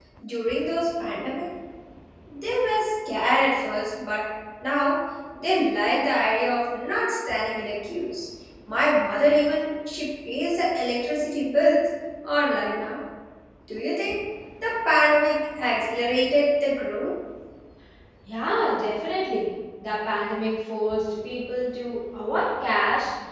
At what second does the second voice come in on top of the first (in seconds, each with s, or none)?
none